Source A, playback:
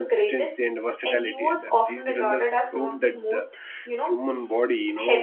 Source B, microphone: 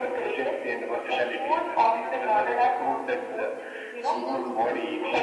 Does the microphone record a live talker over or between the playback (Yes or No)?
Yes